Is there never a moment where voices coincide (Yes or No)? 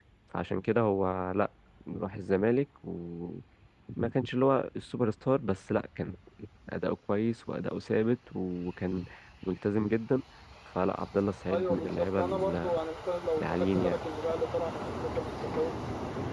No